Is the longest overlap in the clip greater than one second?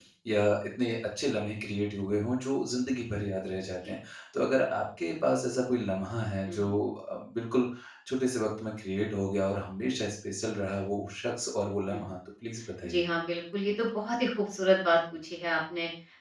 No

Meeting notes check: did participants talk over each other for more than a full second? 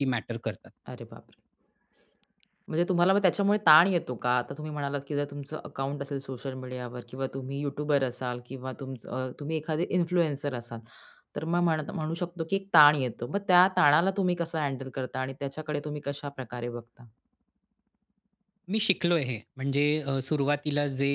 No

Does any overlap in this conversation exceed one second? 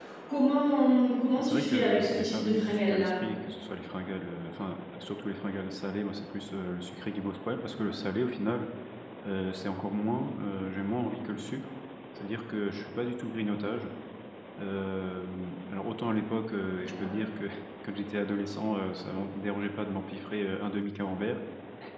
Yes, from 1.4 s

